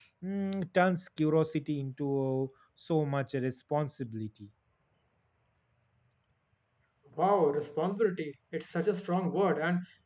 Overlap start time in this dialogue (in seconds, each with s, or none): none